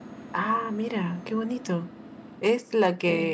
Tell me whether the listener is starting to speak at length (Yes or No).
No